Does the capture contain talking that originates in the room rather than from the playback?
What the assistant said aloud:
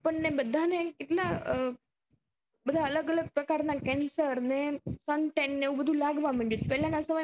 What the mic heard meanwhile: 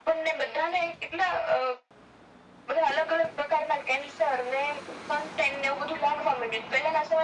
No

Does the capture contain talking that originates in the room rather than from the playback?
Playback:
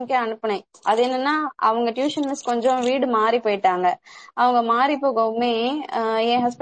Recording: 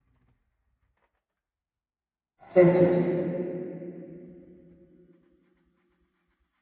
Yes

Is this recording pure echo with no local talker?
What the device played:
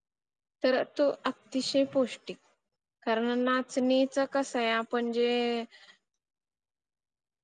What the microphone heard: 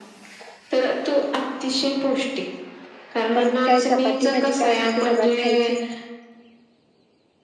No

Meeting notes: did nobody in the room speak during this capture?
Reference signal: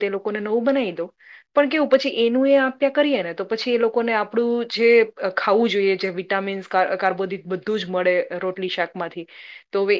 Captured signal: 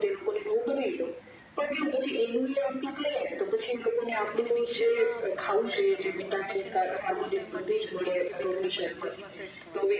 No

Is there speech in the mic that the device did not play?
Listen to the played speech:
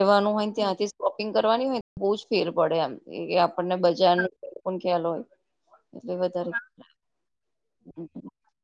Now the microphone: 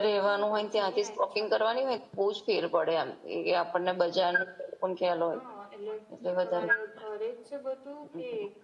Yes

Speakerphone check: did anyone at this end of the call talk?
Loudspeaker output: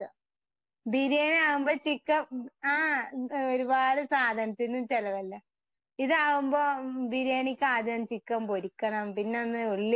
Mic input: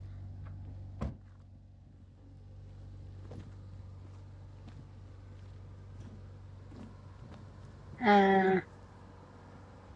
Yes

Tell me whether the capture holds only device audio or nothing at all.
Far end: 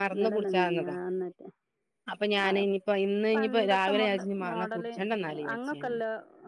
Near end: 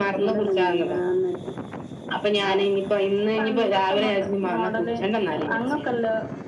Yes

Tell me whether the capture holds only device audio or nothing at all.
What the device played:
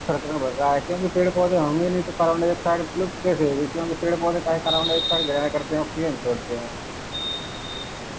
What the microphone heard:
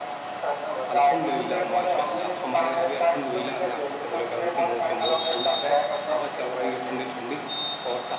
No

